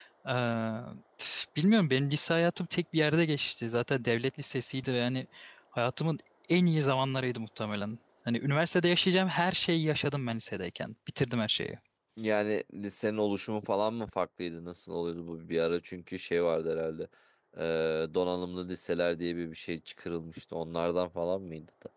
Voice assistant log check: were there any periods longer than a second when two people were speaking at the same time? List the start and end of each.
none

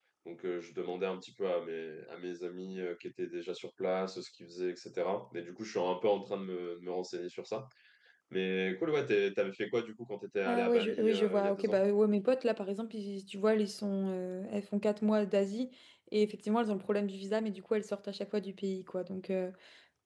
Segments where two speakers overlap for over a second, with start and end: 10.4-11.8

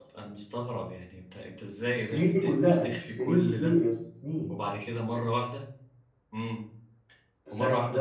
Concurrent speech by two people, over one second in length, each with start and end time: 1.9-3.8

